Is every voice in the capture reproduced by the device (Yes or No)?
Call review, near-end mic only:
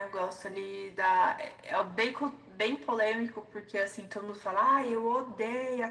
Yes